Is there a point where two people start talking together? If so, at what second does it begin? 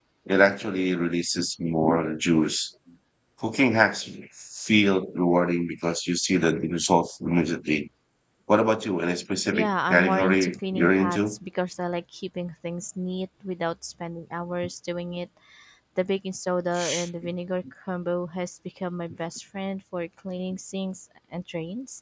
10 s

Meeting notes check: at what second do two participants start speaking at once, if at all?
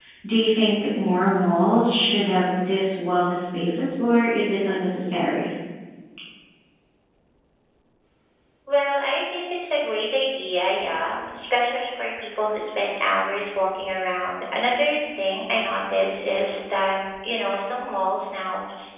none

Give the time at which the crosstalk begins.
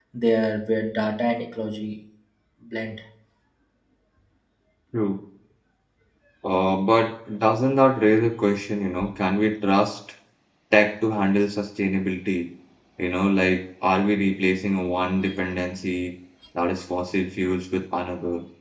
none

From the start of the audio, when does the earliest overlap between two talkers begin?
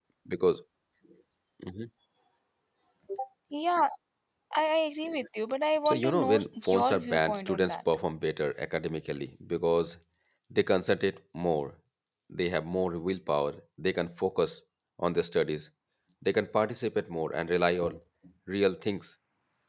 6 s

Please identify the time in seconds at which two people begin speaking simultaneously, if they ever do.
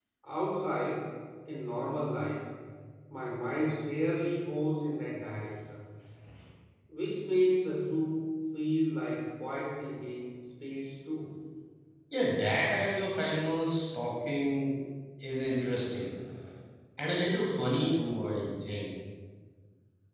none

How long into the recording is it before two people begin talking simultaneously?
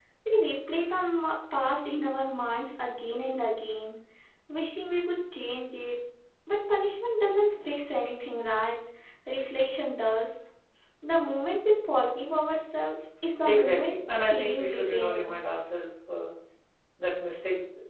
13 s

